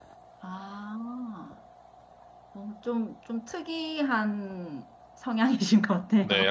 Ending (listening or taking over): taking over